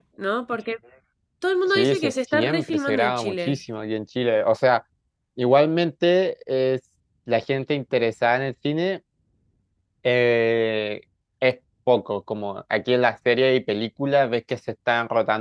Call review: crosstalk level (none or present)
present